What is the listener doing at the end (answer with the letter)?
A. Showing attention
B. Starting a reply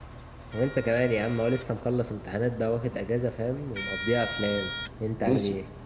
B